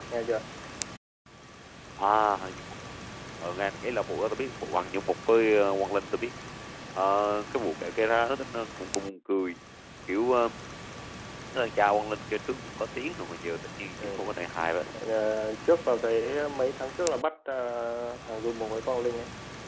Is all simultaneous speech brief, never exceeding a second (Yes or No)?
Yes